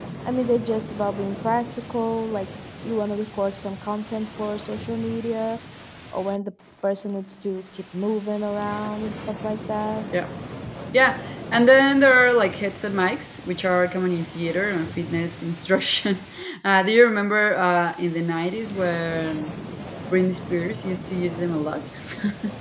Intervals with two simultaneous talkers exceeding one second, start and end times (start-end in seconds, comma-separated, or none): none